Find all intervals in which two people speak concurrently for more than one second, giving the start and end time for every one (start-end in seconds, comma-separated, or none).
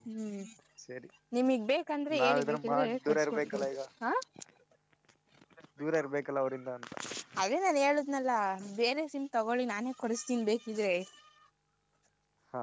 2.2-3.7